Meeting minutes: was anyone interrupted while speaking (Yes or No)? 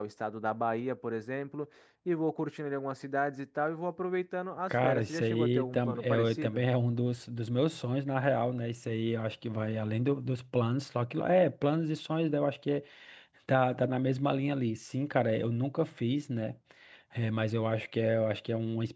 Yes